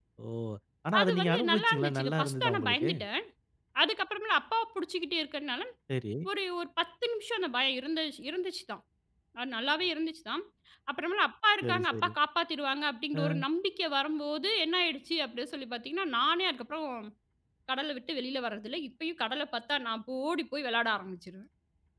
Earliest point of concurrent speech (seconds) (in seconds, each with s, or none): 1.0 s